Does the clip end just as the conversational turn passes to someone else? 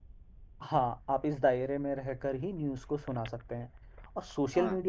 No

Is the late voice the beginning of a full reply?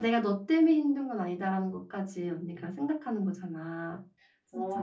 Yes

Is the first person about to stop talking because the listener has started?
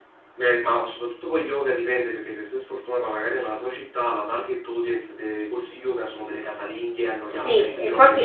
Yes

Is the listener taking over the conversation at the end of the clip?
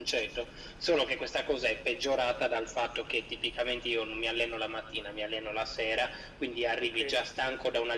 No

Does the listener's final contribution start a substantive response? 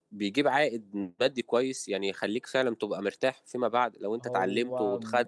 No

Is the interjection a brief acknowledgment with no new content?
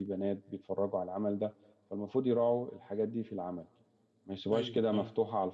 Yes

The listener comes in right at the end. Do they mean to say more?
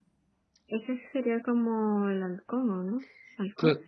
Yes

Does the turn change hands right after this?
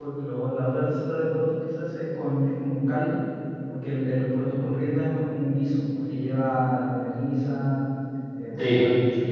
No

